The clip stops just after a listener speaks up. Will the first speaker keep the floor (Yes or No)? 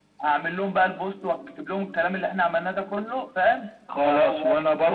No